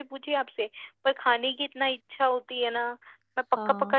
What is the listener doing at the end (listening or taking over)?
taking over